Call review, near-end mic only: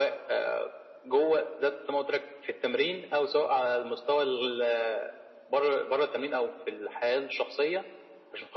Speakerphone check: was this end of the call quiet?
Yes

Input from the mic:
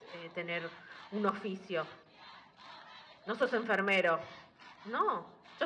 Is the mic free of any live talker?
No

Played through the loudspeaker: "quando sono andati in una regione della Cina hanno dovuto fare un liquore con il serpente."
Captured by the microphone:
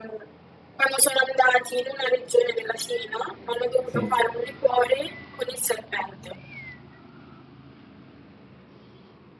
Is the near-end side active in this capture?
Yes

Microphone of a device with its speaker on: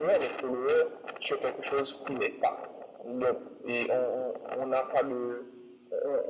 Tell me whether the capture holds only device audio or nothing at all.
Yes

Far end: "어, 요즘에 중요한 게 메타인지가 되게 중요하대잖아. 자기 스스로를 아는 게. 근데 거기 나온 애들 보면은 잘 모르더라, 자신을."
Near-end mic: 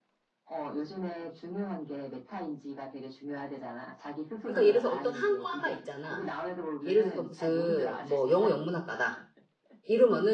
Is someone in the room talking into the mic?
Yes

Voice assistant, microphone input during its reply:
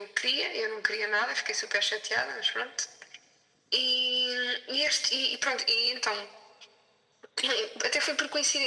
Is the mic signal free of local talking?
Yes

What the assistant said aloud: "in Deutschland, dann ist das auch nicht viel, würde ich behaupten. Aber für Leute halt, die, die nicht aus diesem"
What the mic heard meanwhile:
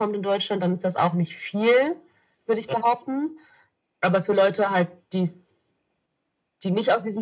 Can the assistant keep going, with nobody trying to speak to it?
Yes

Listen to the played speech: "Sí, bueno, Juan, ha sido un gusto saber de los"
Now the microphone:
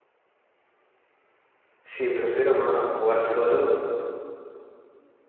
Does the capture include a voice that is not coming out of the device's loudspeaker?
Yes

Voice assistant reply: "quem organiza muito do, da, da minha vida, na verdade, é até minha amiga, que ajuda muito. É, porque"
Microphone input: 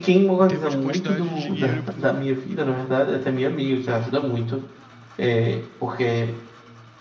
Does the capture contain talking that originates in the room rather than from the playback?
Yes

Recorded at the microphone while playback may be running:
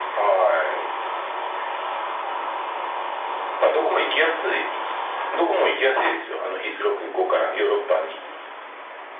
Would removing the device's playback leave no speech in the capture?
Yes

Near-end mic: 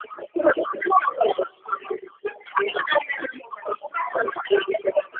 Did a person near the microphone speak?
No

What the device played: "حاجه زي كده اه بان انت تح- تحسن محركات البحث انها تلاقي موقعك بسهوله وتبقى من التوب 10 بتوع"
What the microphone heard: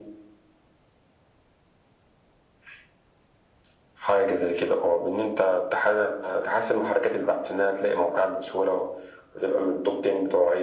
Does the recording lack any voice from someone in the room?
Yes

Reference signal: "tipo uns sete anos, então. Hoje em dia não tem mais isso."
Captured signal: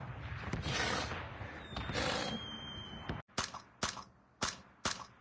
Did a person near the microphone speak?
No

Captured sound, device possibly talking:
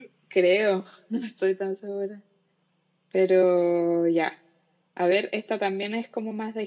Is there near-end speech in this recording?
No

